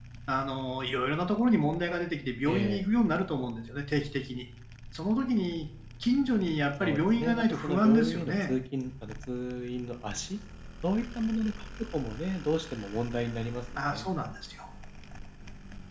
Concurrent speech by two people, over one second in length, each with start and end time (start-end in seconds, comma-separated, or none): 6.8-8.5